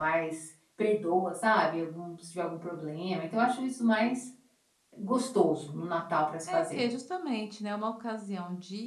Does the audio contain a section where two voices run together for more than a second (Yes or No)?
No